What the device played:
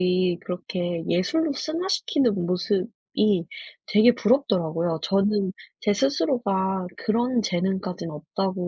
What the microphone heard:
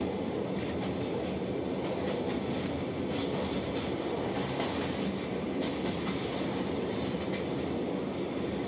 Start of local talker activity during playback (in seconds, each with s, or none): none